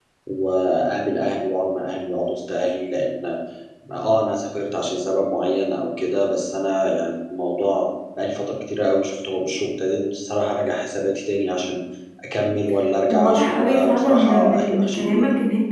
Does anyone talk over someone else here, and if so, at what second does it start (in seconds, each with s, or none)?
13.1 s